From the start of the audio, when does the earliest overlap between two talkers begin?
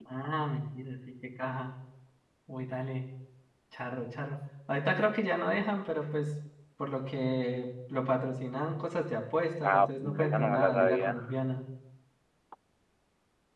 10 s

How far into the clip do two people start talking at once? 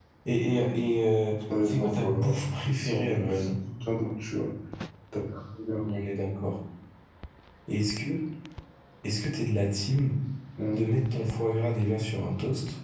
1 s

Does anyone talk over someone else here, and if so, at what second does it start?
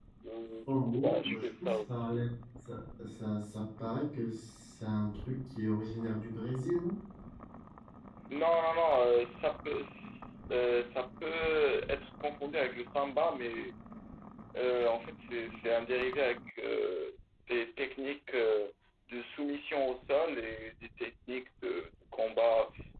1 s

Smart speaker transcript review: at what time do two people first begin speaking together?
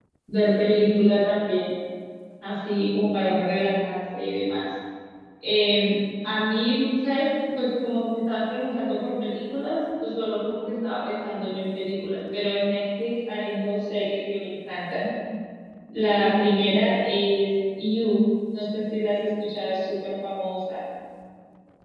none

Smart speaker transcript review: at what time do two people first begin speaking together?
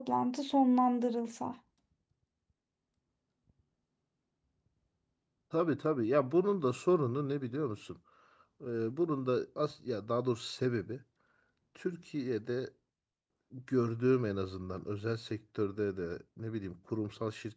none

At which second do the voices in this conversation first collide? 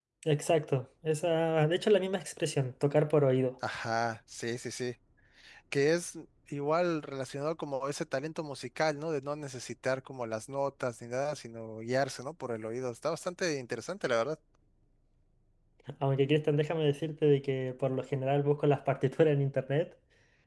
none

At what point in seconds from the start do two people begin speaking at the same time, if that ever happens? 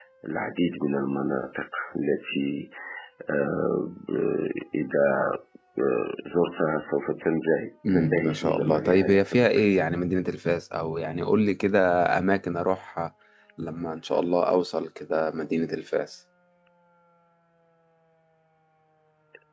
8 s

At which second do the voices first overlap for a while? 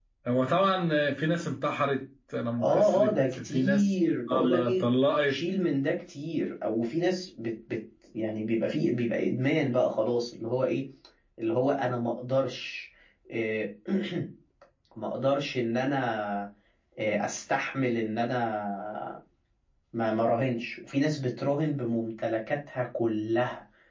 3 s

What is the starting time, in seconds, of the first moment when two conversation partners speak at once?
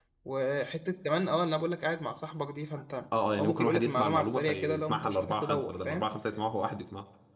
3 s

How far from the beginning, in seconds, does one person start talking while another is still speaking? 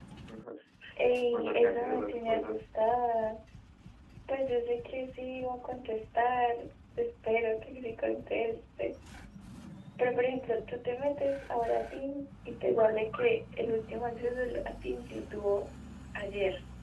1 s

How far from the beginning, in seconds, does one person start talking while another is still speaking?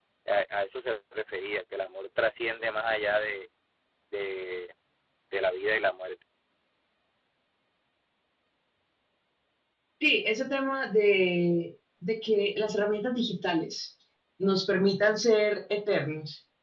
none

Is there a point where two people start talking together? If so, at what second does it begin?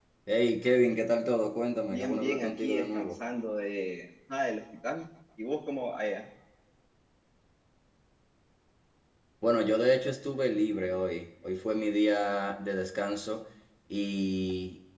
2 s

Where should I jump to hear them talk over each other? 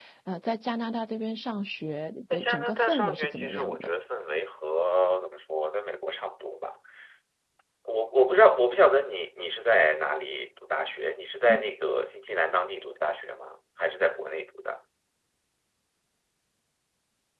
2 s

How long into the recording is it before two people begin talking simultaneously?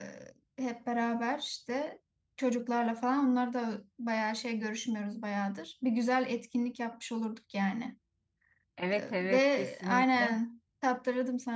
9 s

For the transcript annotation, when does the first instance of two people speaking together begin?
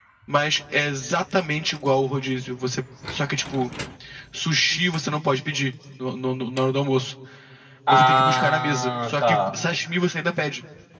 8 s

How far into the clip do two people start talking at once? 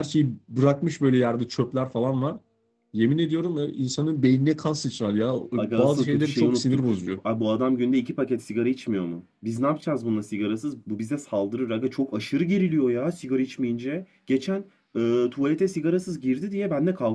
6 s

